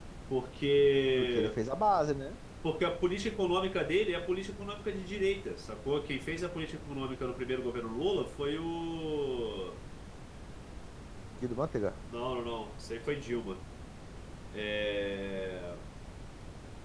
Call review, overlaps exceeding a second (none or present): none